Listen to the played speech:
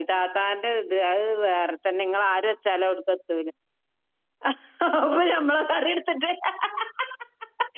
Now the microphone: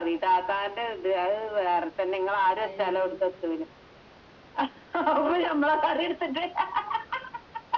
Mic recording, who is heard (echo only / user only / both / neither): both